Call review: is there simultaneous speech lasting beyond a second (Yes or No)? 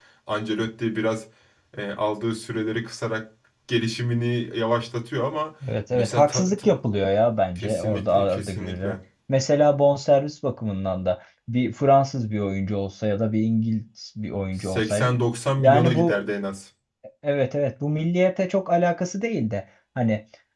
Yes